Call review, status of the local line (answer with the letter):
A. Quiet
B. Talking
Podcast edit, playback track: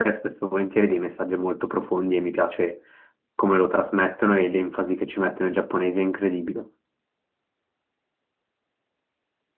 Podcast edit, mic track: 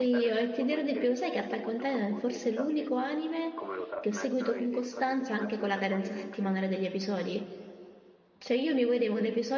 B